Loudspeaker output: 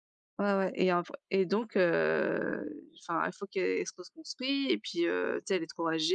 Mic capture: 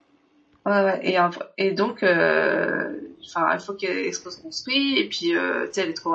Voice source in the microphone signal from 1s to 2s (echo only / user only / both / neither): echo only